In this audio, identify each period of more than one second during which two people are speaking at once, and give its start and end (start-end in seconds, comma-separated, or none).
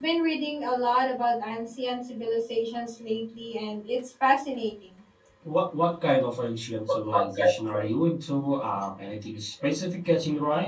none